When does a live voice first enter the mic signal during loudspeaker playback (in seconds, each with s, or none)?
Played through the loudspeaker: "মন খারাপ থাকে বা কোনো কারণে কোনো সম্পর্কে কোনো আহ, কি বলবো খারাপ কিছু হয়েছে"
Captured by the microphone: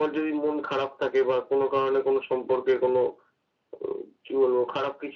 none